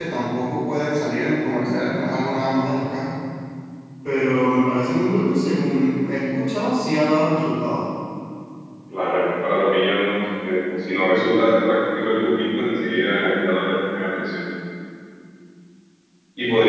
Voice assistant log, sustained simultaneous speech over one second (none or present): none